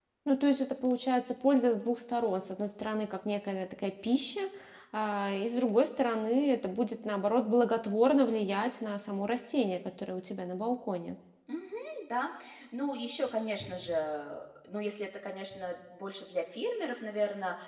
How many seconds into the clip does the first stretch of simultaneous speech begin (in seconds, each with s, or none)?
none